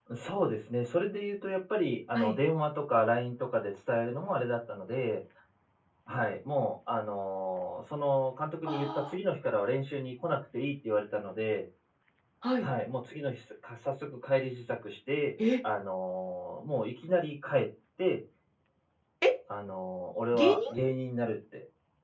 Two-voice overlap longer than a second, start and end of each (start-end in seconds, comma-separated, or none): none